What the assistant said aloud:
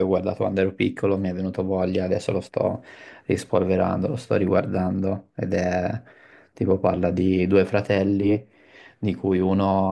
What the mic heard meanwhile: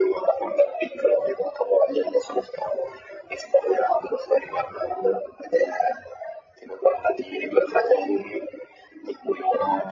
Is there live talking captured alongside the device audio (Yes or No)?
No